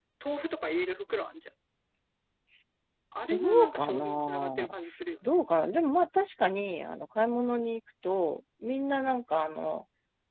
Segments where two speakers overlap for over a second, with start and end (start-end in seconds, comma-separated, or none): 3.3-4.7